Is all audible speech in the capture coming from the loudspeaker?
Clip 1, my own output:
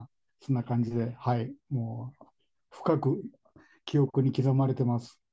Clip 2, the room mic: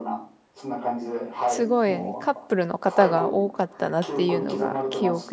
No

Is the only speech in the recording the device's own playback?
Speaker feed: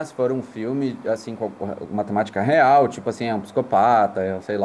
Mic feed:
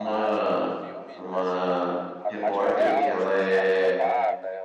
No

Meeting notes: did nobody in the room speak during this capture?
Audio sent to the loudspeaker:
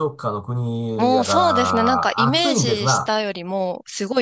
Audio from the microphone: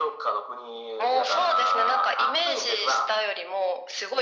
Yes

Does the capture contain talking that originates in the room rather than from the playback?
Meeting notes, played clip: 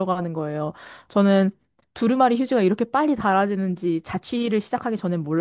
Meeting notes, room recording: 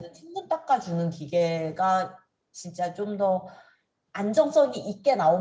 Yes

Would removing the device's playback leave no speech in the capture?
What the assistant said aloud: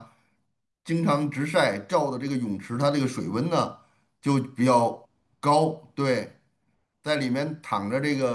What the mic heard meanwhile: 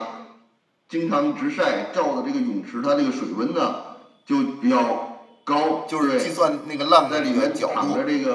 No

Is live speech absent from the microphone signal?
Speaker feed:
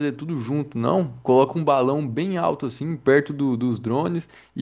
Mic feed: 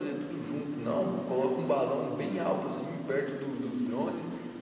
Yes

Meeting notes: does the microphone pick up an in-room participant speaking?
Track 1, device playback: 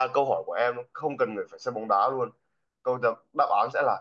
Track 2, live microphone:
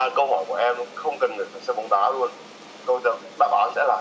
No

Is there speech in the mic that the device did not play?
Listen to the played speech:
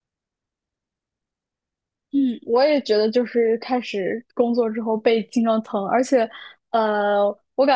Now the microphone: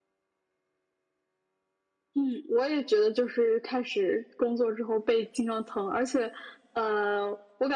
No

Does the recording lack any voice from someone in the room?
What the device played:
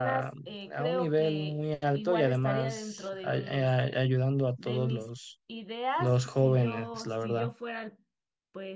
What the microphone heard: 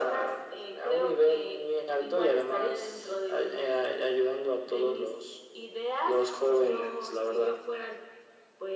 Yes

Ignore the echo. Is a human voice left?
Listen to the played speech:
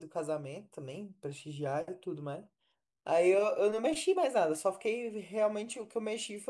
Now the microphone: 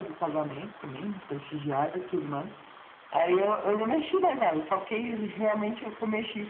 No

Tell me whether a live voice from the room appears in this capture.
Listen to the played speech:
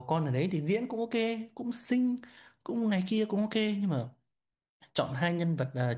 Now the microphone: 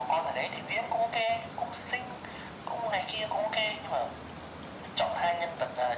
No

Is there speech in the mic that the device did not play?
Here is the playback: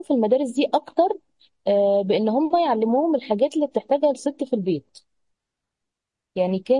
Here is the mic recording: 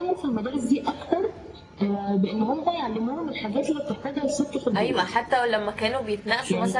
Yes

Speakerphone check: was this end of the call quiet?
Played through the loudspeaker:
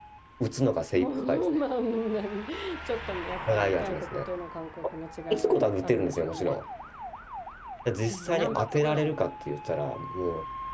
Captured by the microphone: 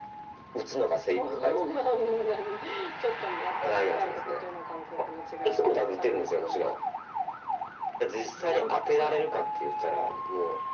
Yes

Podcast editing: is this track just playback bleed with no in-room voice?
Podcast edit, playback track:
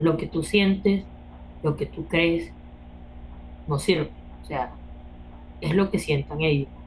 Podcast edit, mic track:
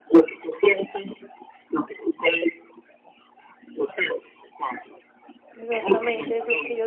No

